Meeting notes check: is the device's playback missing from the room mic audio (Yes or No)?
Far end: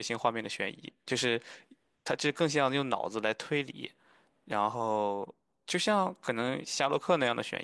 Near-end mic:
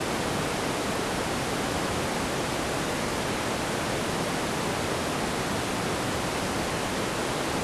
Yes